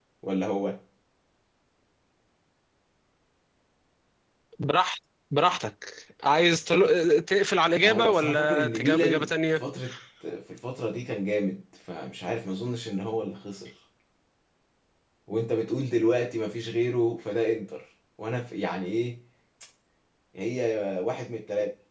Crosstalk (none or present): present